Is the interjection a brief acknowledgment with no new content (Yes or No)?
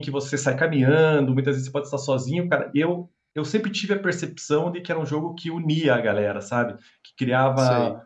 Yes